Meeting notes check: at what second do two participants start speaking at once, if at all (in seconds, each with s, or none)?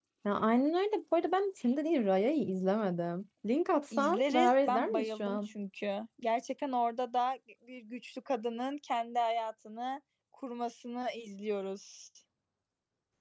3.9 s